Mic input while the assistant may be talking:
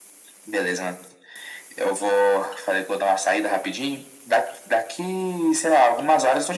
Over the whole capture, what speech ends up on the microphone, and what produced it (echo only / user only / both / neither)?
echo only